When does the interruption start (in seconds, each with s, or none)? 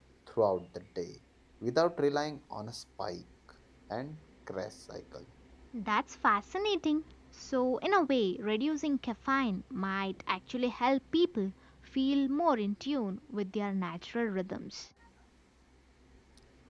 none